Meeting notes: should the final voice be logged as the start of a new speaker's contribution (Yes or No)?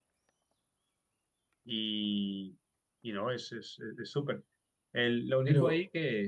No